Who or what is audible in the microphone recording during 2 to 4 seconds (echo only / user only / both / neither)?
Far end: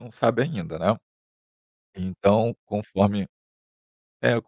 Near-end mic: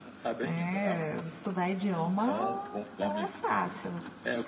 both